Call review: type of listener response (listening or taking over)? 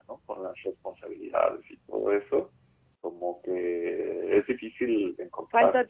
listening